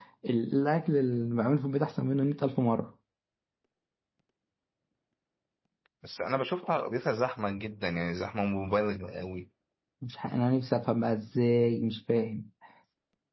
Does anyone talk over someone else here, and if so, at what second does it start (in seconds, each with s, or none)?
none